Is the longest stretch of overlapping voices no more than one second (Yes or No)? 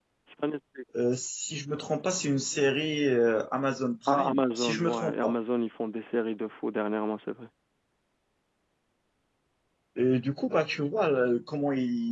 No